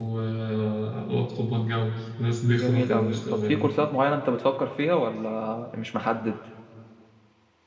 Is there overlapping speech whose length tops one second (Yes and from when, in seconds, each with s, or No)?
Yes, from 2.5 s